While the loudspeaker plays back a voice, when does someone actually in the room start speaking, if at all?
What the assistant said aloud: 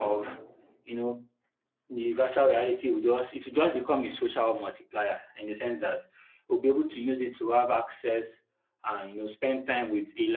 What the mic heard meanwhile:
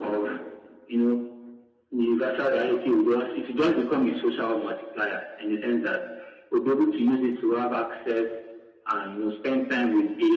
none

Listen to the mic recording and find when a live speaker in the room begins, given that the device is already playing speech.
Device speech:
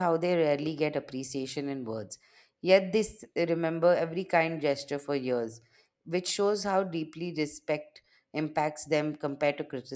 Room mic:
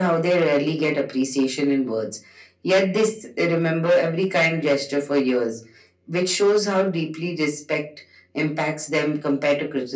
none

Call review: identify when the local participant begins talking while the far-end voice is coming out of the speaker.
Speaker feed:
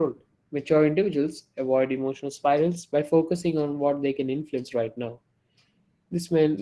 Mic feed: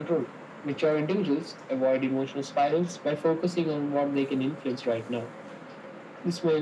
none

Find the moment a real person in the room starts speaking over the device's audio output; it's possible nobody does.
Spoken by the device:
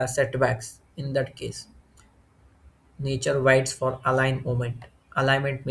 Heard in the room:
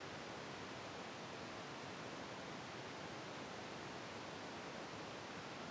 none

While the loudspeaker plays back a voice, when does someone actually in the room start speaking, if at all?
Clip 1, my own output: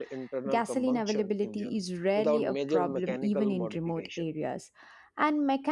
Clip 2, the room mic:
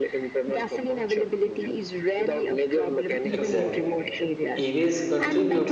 3.2 s

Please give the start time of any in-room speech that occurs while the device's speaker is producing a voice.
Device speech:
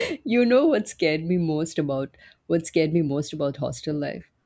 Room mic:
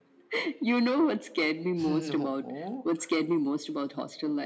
1.9 s

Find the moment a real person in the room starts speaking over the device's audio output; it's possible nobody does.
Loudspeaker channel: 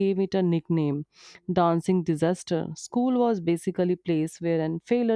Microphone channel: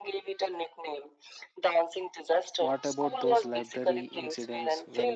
2.7 s

